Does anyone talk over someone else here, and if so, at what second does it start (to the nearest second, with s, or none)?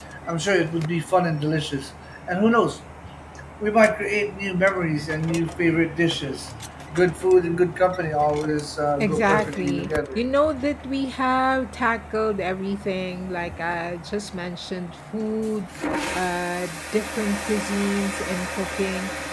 9 s